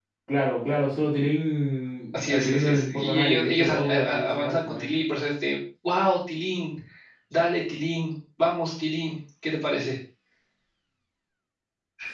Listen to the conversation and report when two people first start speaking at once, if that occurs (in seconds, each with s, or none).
2.1 s